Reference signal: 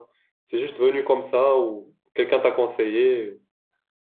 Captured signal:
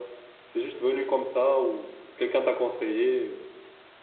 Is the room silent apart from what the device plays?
Yes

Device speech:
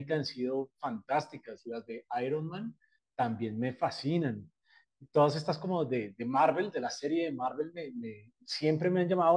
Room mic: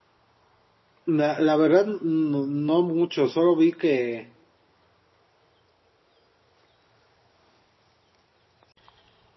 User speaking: Yes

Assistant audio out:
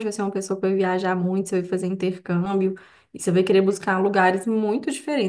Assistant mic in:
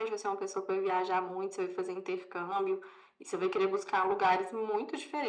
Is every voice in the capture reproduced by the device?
Yes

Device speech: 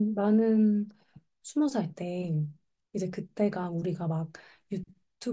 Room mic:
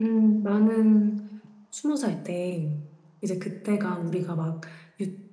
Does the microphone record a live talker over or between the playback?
No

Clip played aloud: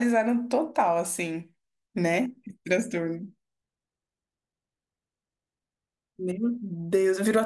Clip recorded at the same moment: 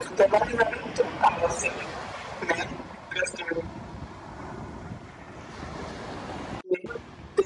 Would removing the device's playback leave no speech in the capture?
Yes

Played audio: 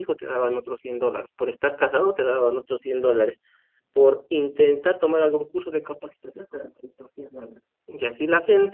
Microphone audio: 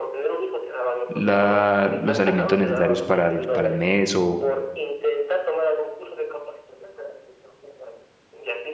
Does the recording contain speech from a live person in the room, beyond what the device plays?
Yes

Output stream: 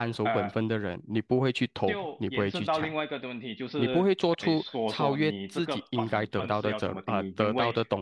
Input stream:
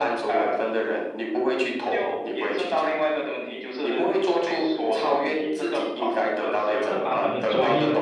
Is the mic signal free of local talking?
No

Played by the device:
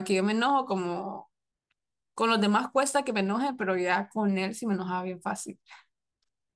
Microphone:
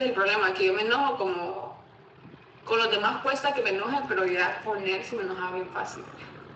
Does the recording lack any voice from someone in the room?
Yes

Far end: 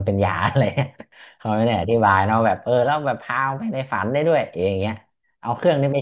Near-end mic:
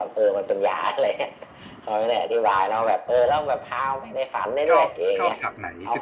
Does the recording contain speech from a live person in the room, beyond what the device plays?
Yes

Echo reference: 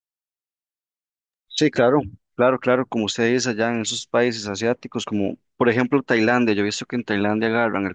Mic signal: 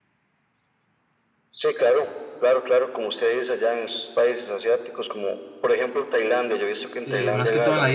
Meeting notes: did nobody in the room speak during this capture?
No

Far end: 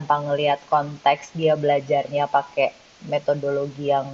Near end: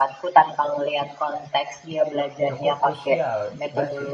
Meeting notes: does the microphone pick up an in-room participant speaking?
Yes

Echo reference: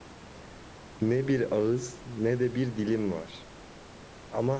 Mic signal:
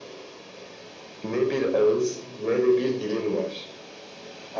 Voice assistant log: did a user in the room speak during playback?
No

